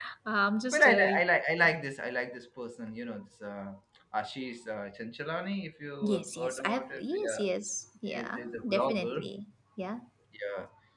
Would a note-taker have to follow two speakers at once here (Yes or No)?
Yes